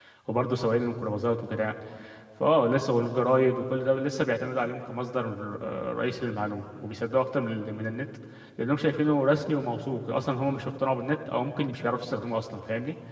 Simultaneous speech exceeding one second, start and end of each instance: none

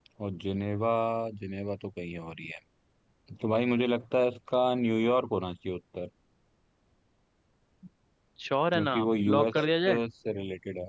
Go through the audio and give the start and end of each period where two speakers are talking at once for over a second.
8.7-10.0

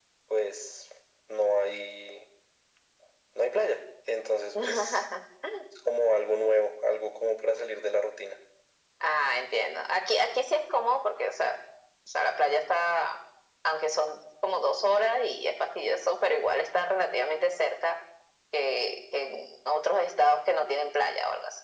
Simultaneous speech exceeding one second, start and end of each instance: none

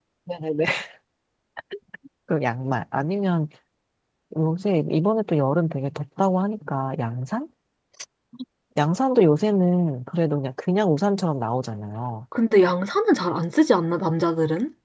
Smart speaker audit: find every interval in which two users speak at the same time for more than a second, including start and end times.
none

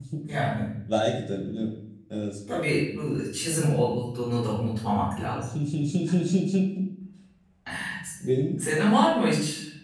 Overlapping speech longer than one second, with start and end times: none

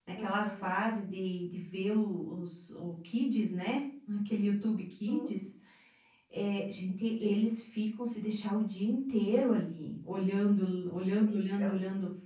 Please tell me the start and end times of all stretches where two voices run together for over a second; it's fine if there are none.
none

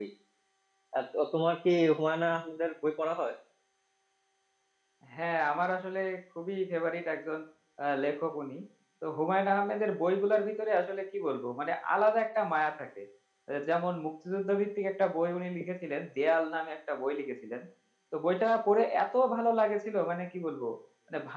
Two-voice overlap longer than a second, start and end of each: none

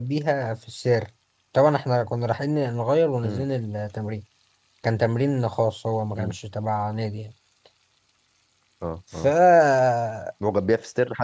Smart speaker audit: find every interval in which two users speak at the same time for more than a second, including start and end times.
none

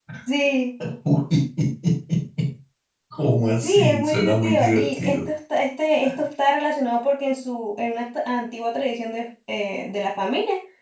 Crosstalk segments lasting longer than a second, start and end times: 3.6-5.3

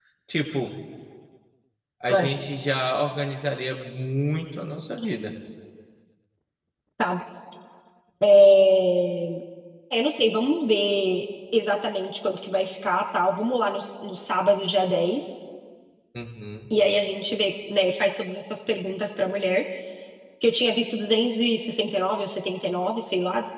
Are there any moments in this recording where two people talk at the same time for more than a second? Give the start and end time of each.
none

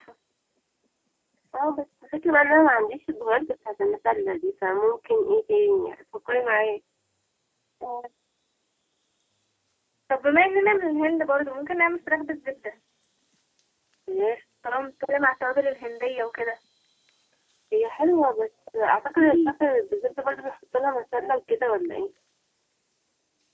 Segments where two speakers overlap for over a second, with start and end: none

